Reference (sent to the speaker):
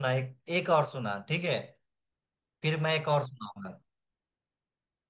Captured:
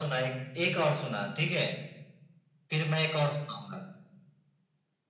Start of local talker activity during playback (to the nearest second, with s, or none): none